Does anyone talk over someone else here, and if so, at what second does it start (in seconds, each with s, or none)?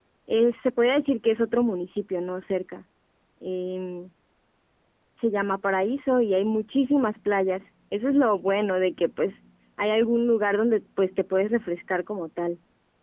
none